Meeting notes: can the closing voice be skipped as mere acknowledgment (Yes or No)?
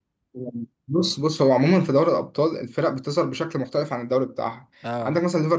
Yes